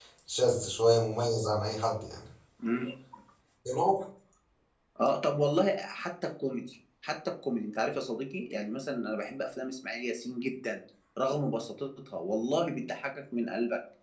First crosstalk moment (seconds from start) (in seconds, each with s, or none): none